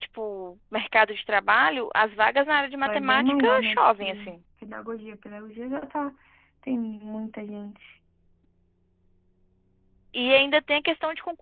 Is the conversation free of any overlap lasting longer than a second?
No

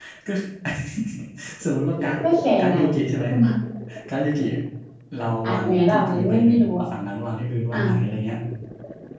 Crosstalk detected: Yes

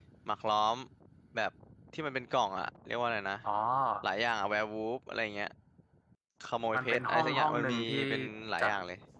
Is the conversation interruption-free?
No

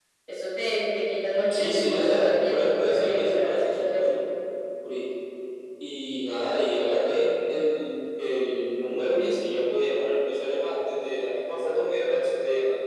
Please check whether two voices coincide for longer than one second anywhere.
Yes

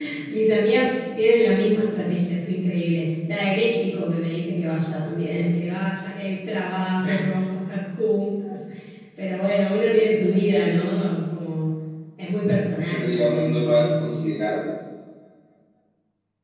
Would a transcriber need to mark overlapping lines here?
Yes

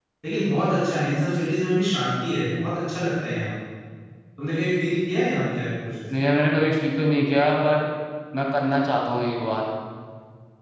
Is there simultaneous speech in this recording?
No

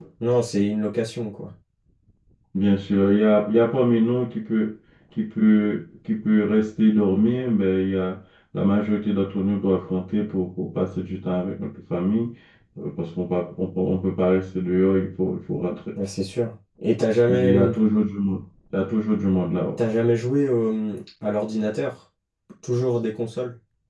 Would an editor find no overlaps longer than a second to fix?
Yes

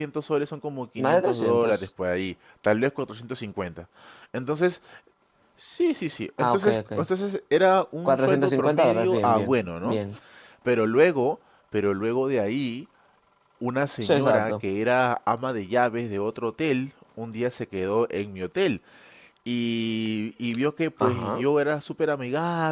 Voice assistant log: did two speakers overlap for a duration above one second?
Yes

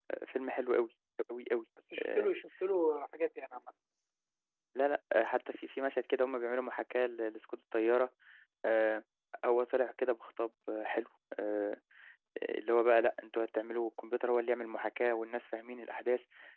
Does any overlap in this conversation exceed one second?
No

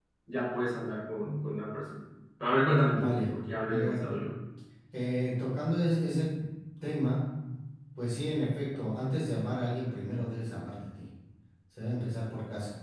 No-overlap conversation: No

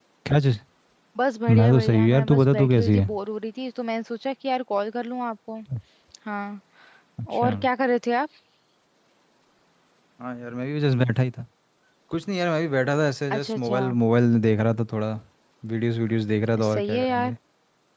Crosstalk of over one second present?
Yes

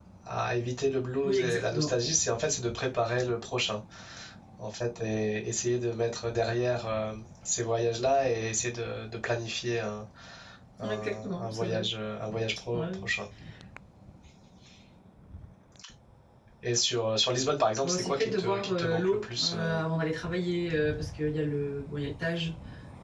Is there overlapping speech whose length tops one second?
Yes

